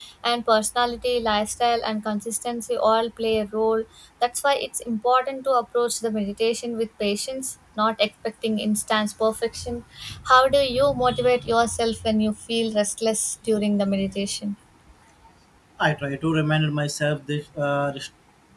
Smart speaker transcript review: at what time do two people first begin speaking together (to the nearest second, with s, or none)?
none